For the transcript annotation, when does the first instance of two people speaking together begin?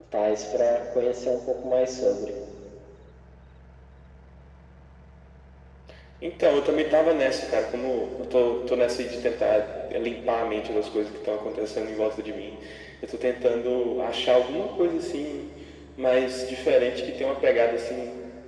none

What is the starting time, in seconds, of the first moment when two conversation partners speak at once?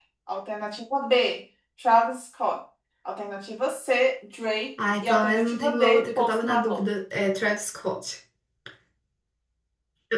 5 s

